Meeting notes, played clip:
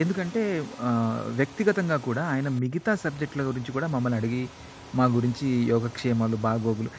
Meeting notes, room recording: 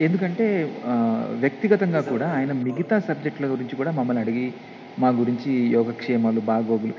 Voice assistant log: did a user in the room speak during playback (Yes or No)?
Yes